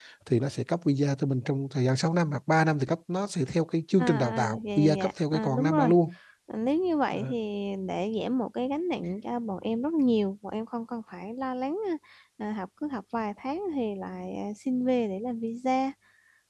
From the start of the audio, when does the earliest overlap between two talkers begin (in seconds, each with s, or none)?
4.0 s